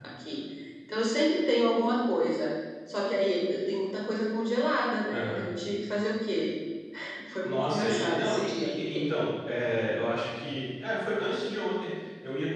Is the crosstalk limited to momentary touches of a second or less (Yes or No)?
No